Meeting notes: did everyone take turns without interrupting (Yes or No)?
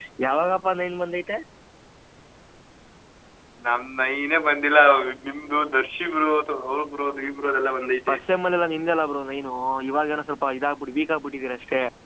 Yes